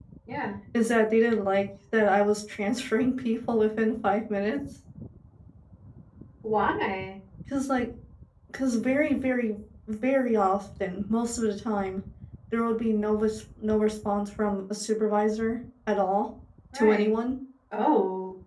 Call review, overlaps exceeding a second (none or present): none